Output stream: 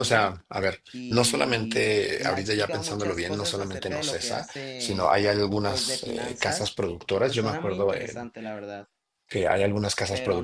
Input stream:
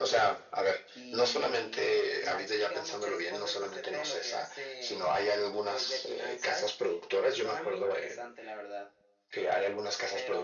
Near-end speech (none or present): none